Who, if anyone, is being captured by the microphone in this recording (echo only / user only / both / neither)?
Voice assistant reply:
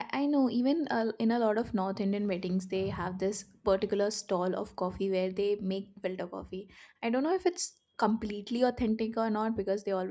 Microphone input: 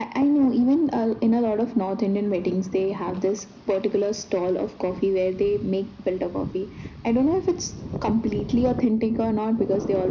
echo only